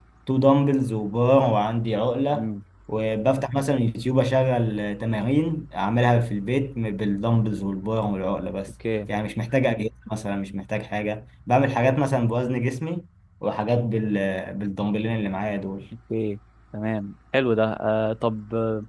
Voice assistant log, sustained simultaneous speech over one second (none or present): none